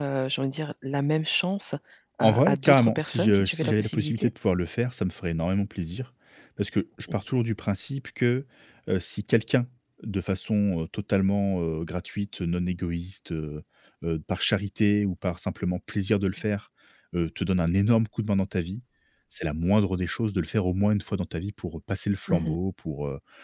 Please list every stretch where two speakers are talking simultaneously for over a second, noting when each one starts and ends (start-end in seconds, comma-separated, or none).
2.2-4.3